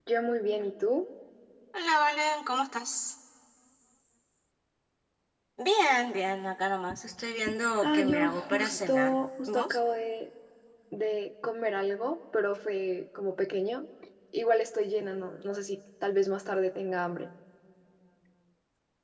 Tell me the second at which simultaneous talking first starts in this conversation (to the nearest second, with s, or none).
8 s